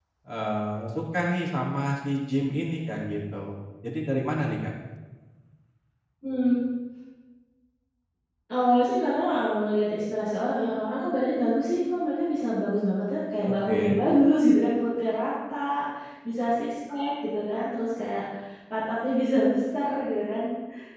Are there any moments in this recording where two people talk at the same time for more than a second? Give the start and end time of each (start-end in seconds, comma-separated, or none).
none